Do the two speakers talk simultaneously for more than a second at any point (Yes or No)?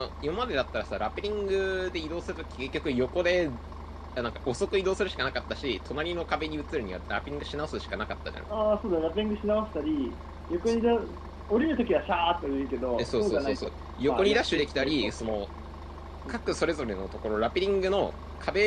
Yes